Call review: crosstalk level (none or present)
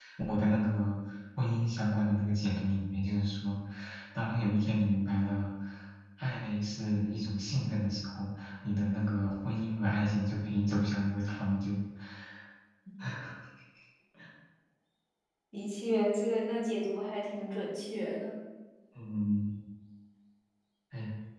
none